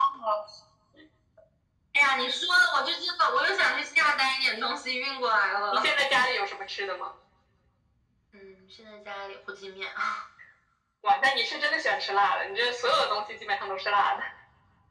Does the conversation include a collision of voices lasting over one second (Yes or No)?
No